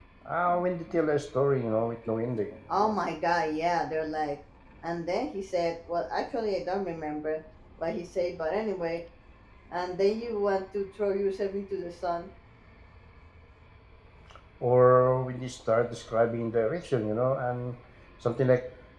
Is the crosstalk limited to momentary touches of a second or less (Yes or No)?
Yes